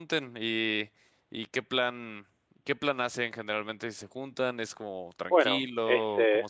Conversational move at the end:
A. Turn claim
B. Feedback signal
A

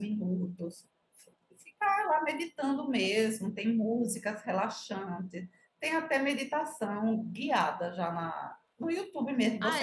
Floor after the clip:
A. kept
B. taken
B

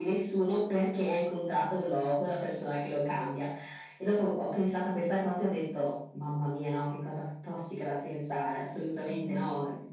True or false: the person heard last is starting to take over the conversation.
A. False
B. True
A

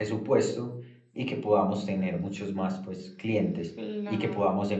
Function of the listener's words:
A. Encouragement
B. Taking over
A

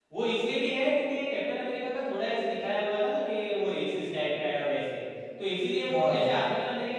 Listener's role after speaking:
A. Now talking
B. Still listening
B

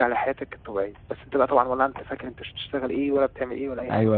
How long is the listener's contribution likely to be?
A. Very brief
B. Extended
B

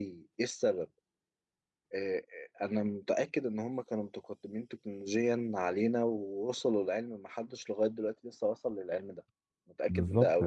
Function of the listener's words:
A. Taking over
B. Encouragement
A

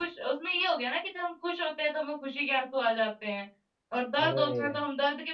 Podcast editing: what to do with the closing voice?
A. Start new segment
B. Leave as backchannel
B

